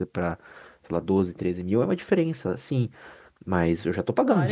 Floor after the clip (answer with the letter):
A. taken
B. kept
A